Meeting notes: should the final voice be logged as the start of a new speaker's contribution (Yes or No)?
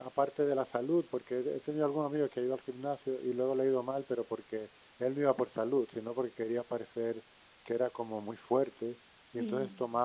No